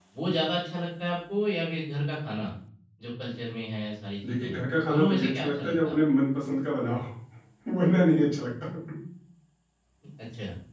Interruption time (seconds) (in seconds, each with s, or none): 4.2 s